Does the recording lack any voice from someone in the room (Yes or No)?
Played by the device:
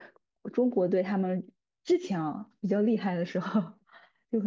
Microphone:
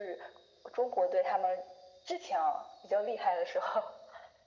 Yes